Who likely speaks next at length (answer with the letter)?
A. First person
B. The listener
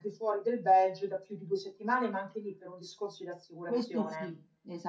B